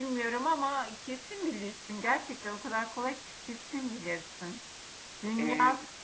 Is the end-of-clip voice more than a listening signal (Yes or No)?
No